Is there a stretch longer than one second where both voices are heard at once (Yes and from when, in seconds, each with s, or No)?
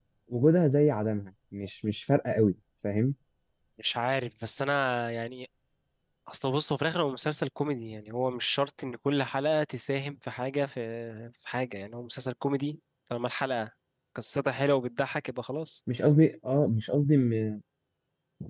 No